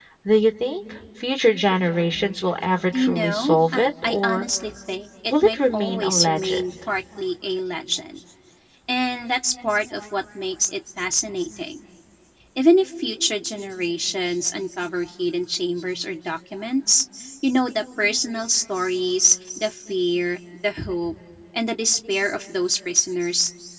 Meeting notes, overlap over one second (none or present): present